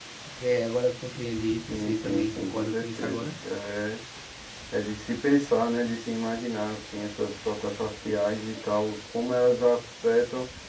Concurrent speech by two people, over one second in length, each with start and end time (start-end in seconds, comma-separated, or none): 1.7-3.3